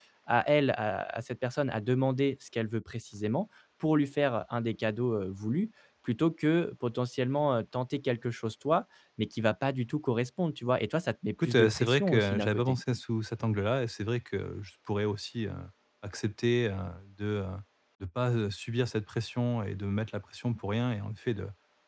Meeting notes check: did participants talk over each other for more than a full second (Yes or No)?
Yes